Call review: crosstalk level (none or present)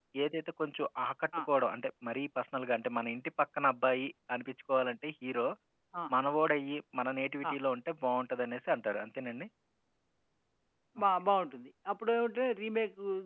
none